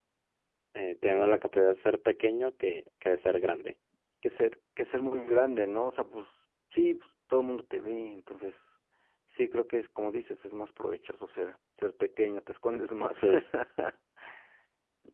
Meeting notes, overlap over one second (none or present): none